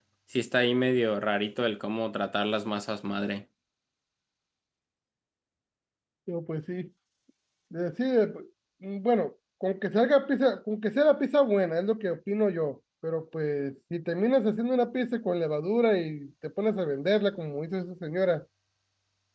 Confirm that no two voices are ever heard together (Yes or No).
Yes